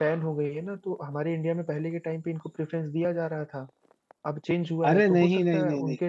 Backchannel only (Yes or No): No